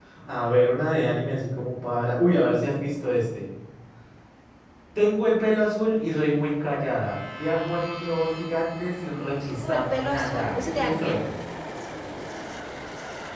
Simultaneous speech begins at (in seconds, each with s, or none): 9.6 s